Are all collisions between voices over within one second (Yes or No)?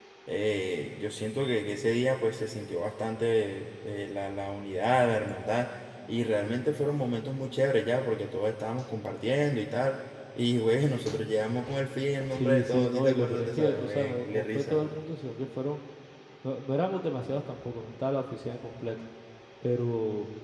No